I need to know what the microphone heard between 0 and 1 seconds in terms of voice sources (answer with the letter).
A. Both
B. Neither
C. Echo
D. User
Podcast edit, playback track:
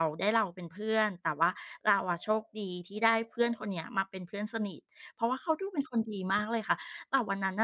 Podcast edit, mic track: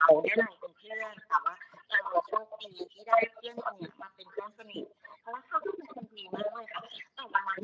C